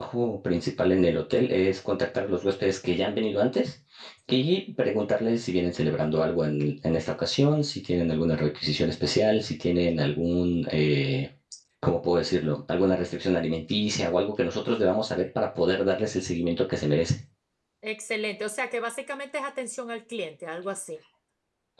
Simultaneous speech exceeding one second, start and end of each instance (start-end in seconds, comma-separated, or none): none